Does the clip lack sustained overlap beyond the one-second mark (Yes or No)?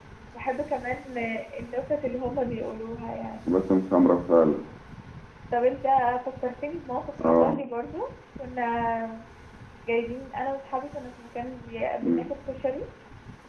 Yes